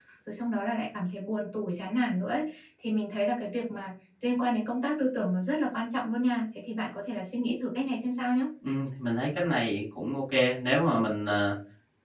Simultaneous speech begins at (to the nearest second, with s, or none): none